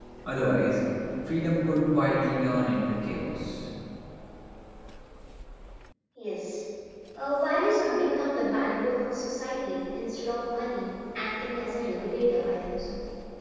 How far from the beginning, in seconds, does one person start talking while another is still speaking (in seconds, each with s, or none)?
none